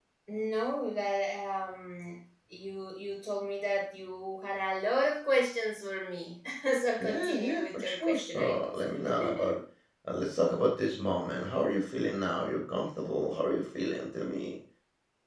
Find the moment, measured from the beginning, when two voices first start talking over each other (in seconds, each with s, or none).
7.0 s